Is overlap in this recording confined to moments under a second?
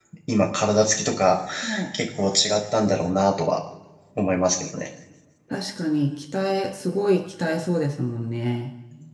Yes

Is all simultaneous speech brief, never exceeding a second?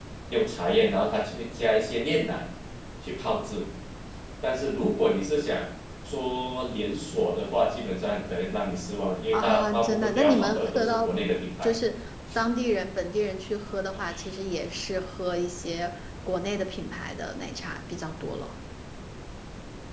No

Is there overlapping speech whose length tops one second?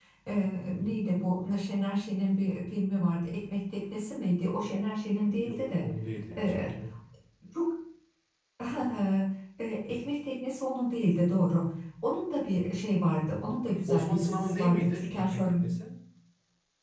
Yes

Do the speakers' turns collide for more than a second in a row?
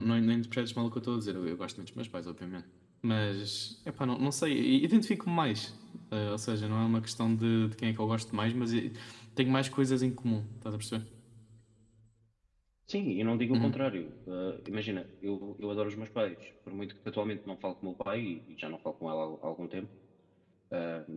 No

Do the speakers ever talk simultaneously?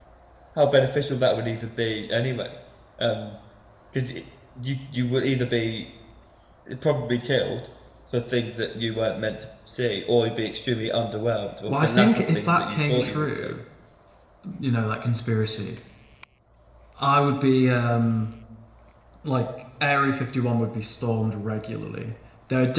Yes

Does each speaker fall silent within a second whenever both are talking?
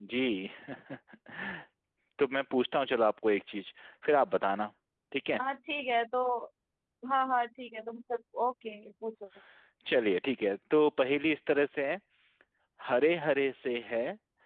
Yes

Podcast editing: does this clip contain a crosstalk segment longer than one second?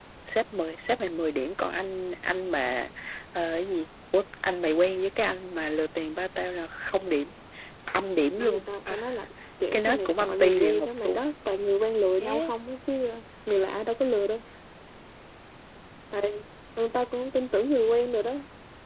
Yes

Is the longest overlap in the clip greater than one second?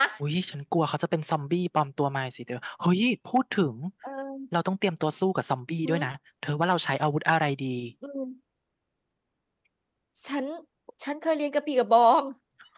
No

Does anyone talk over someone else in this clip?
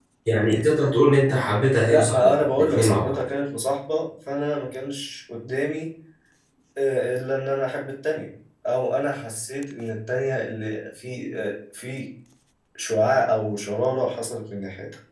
Yes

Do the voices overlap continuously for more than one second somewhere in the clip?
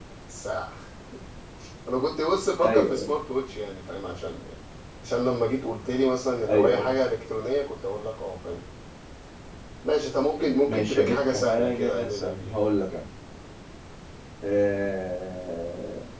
Yes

